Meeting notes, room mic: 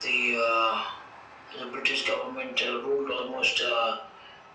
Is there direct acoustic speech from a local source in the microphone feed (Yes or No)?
No